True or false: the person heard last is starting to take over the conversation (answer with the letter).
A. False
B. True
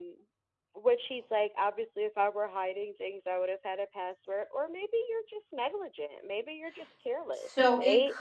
B